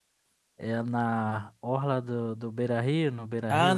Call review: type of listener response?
taking over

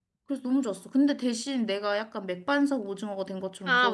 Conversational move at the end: taking over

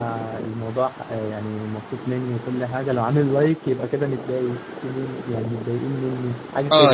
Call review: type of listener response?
taking over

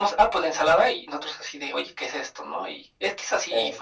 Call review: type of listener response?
listening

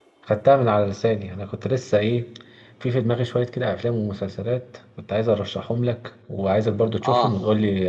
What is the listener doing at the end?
listening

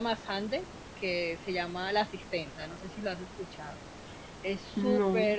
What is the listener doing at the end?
listening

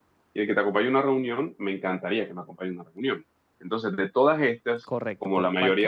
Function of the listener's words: taking over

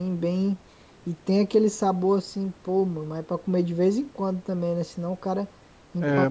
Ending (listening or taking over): taking over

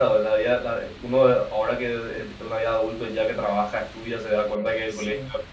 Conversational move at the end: listening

